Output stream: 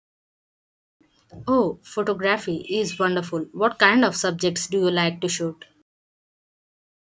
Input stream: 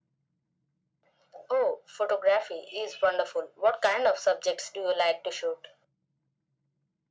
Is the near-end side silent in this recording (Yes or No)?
Yes